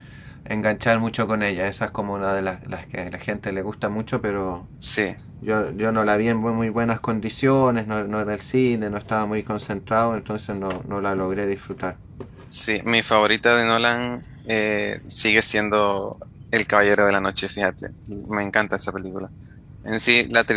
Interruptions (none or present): none